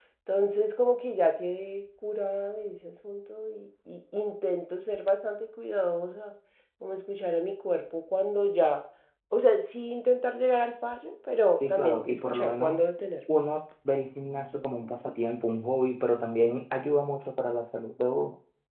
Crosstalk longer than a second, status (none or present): present